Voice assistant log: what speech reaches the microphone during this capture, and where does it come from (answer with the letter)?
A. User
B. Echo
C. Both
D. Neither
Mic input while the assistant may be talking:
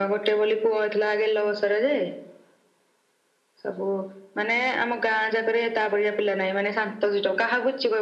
B